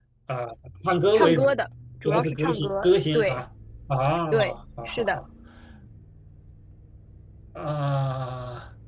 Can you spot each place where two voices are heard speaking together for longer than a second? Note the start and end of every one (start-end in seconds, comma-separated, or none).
2.0-3.4